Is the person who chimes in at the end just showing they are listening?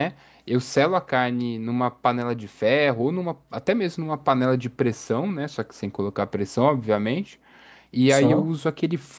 Yes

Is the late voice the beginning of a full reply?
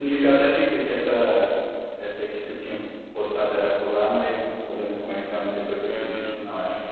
Yes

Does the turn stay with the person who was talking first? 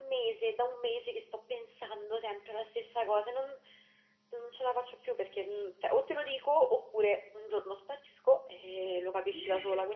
Yes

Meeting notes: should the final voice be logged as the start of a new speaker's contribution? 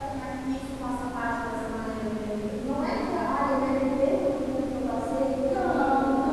No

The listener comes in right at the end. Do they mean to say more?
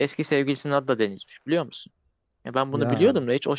No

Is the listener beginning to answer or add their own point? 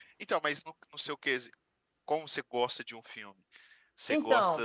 No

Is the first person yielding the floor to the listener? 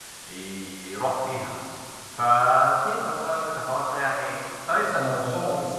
Yes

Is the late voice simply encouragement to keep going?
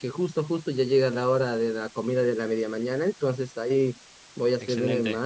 Yes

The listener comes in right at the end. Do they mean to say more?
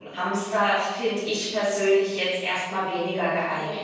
Yes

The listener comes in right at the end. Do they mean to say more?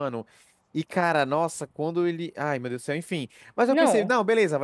No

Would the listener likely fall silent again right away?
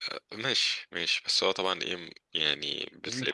Yes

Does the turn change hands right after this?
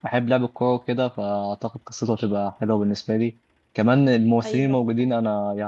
No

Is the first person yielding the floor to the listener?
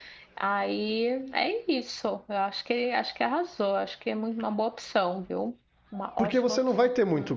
Yes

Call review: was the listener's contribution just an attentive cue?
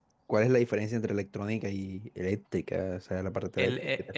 No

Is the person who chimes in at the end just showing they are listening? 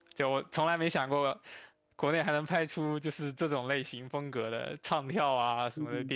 No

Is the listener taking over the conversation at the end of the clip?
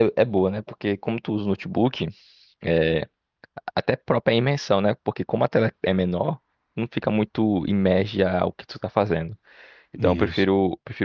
No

